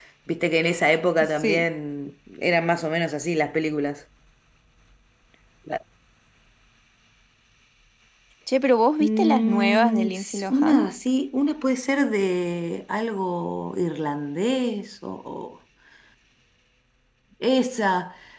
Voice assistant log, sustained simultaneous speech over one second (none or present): present